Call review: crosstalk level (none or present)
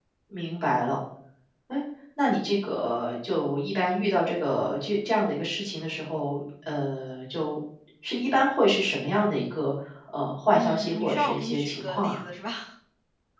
present